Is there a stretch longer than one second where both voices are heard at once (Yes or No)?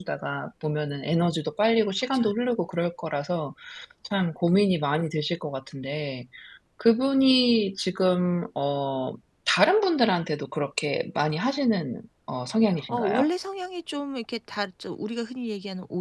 No